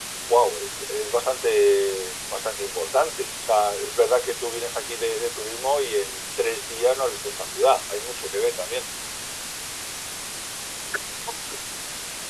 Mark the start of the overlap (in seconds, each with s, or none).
none